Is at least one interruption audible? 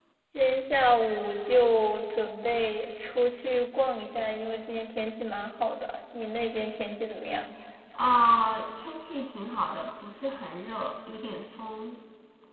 No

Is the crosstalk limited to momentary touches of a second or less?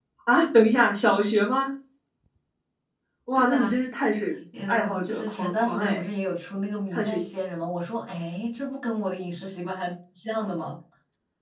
No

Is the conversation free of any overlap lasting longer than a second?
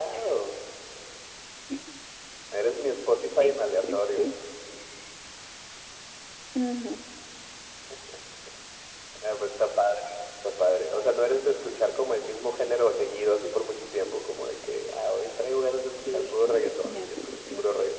No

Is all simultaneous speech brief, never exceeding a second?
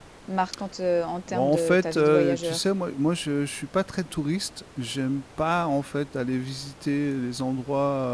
No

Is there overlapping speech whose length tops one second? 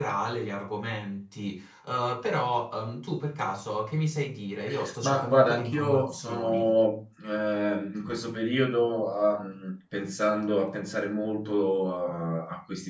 Yes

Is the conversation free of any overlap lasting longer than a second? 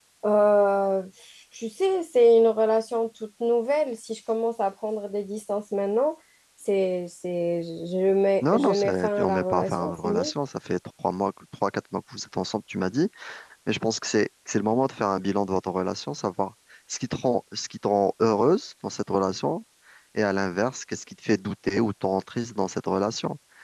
No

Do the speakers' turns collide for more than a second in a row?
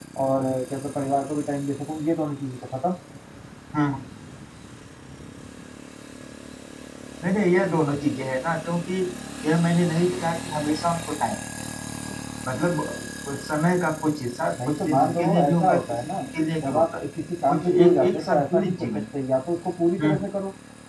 Yes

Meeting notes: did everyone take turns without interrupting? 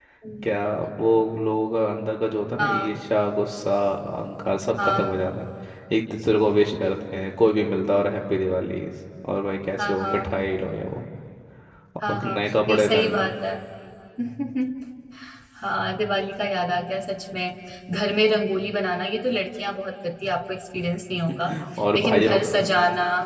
No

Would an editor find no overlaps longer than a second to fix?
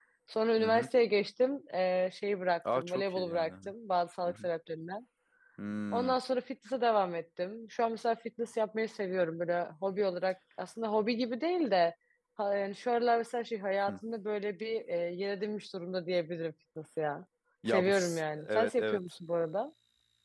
No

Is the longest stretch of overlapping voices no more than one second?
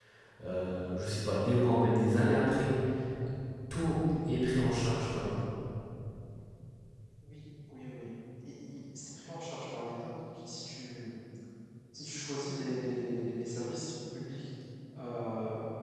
Yes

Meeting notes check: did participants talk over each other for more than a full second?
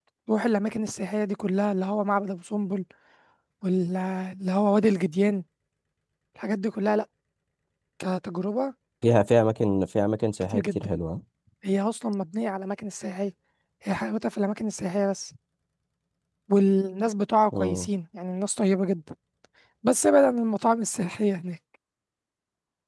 No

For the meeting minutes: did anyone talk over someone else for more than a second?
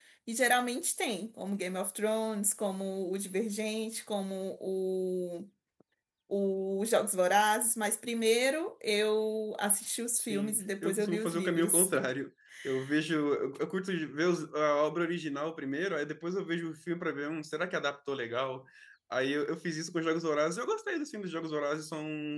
Yes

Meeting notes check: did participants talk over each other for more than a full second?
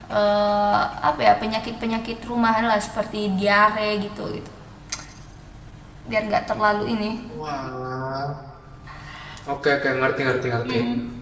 No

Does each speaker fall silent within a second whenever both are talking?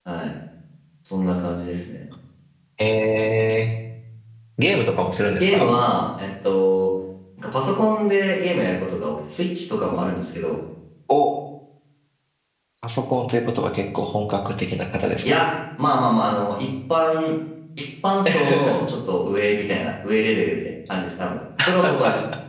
Yes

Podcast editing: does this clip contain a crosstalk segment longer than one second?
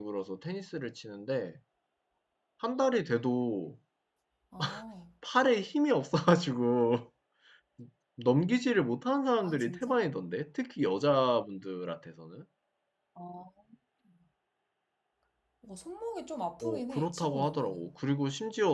Yes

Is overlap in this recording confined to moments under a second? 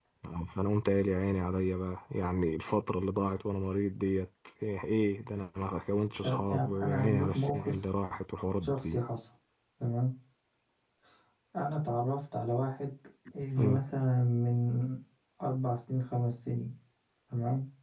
No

